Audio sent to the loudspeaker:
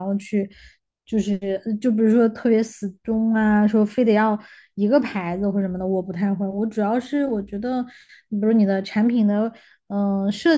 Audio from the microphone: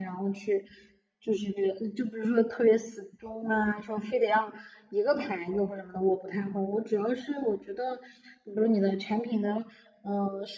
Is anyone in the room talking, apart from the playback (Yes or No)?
No